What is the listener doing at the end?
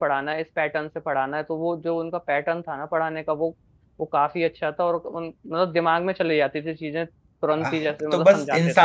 taking over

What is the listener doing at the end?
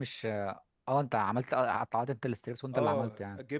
taking over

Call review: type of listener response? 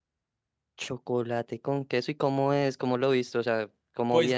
taking over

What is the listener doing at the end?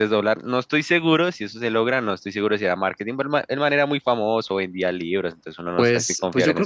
taking over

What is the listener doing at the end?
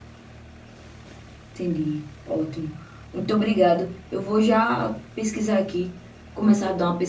listening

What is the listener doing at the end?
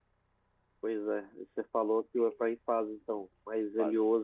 listening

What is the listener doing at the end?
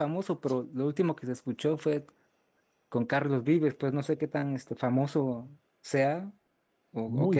taking over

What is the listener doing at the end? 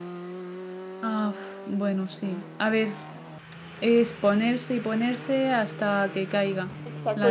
taking over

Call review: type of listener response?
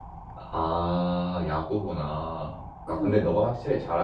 listening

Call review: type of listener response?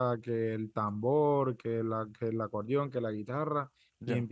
listening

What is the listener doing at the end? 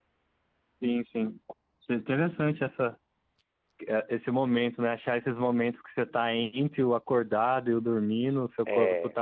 listening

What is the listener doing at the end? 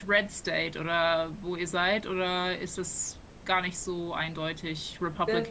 taking over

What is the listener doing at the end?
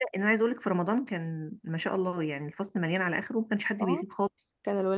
taking over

